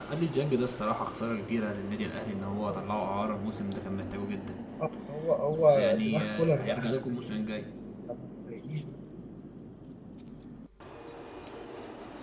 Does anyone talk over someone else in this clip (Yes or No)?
Yes